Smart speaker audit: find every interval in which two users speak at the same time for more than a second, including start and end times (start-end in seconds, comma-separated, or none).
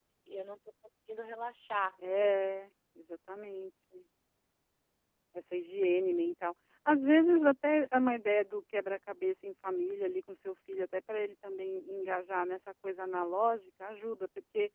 none